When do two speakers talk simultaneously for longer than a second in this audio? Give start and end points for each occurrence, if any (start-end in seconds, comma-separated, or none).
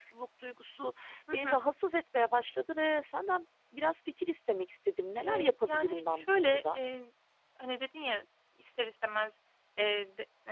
5.2-6.8